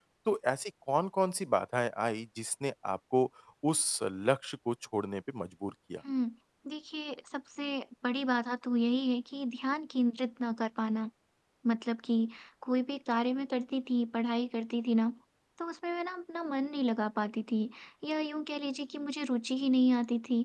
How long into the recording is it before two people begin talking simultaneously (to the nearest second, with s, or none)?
none